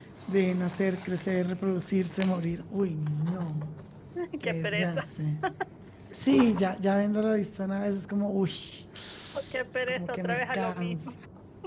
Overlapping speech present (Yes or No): Yes